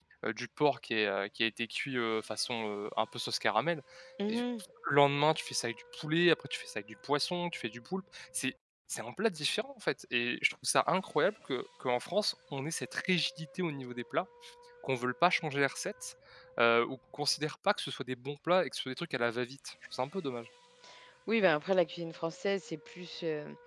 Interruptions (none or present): none